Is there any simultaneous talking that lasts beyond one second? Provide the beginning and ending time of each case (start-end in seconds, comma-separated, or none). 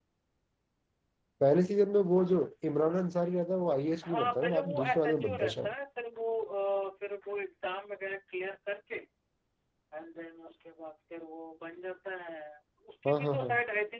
4.0-5.7